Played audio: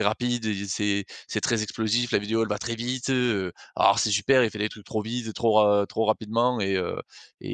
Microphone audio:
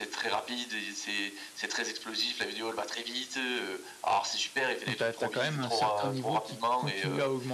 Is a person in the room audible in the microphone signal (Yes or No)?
Yes